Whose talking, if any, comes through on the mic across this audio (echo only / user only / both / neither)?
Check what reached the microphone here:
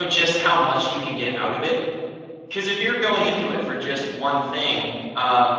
user only